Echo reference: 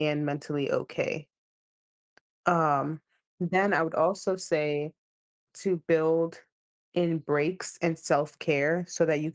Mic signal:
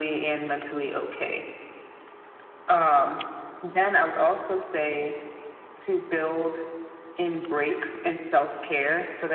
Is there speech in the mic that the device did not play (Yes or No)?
No